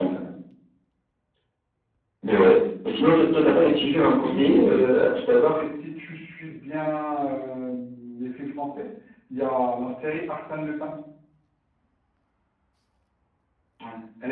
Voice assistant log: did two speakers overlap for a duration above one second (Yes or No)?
Yes